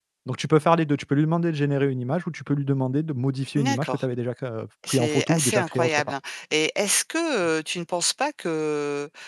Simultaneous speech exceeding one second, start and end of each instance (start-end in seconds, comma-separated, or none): 4.9-6.1